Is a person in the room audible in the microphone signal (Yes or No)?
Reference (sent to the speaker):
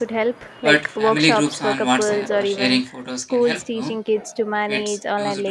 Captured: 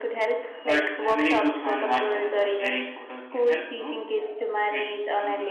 No